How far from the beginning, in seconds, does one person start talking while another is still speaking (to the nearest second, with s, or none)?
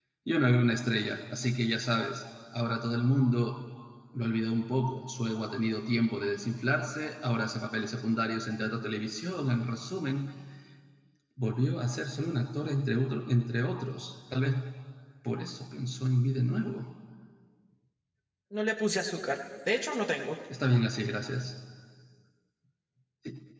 none